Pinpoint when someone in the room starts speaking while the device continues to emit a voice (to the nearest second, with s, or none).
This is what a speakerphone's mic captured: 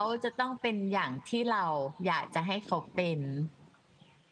none